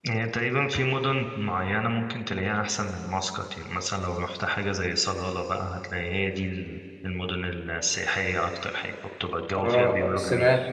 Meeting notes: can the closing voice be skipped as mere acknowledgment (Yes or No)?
No